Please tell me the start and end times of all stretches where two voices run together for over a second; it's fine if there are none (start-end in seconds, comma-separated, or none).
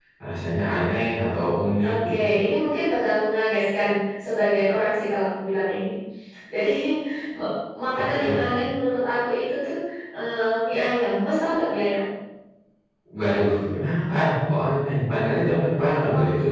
none